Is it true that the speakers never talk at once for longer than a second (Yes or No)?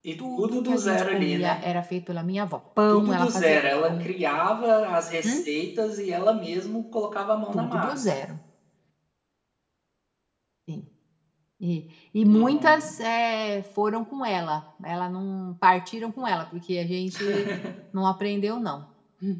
No